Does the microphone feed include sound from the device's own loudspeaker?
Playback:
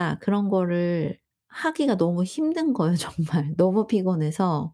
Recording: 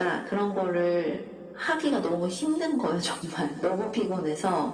Yes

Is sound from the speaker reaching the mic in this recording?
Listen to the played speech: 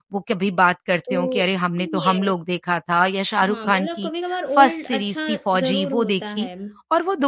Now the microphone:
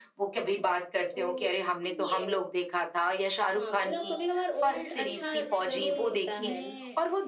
Yes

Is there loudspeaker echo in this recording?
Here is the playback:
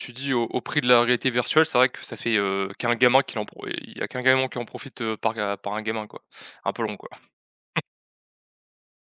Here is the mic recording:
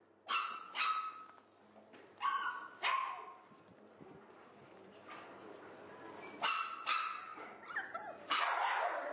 No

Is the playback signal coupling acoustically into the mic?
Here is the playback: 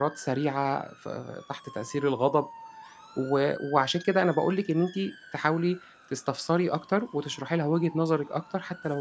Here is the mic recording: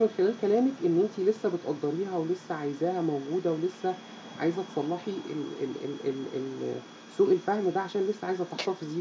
No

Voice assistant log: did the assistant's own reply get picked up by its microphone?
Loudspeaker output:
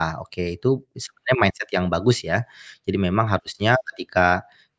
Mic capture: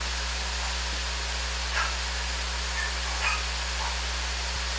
No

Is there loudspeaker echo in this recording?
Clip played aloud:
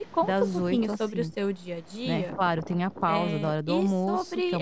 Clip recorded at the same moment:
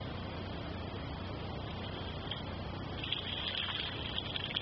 No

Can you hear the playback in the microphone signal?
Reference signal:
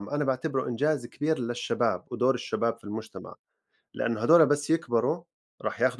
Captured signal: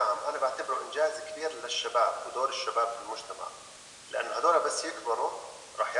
Yes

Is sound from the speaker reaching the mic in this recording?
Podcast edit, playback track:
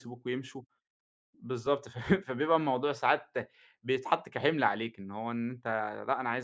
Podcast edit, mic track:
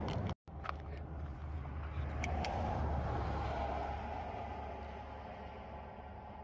No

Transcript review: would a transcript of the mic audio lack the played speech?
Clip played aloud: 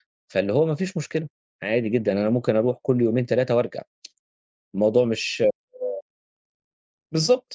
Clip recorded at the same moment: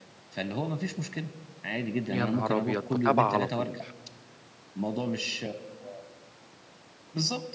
No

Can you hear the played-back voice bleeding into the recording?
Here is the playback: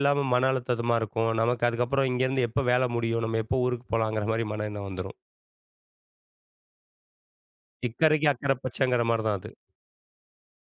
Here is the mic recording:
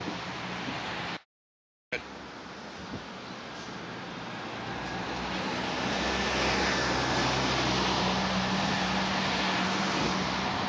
No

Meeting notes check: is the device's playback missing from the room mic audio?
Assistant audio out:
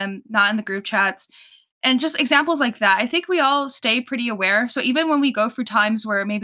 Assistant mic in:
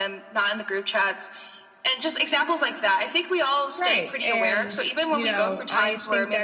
No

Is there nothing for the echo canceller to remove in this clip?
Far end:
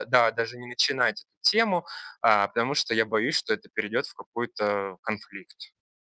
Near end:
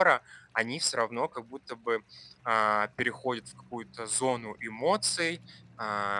Yes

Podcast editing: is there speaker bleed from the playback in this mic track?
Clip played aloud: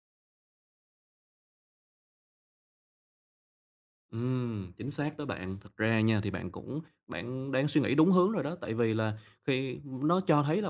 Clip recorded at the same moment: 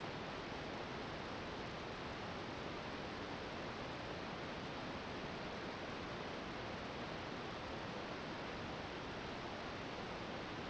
No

